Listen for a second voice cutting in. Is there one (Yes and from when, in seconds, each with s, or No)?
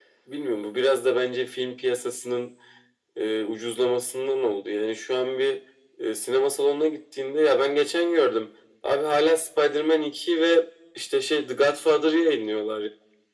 No